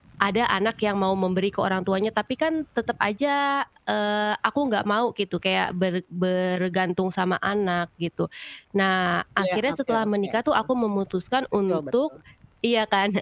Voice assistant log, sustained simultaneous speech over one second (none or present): present